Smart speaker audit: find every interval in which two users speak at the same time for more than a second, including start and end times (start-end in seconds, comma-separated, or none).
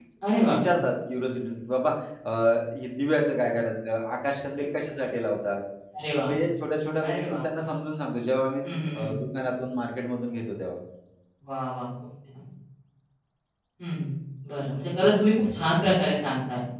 none